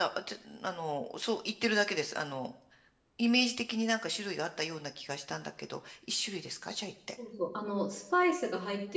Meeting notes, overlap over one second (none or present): none